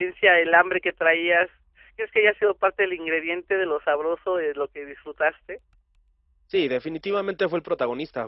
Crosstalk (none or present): none